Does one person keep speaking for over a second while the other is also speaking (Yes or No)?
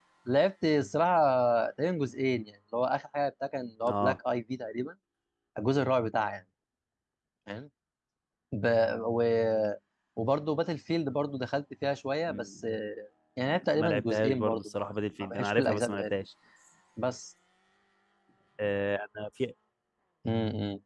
Yes